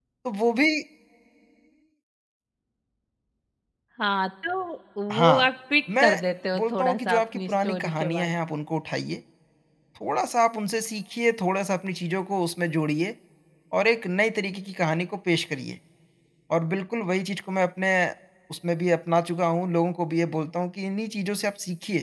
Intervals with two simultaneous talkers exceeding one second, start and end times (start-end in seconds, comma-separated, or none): 6.6-8.3